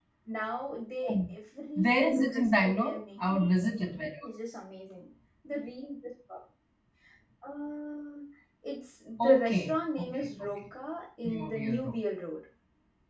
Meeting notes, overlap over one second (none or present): present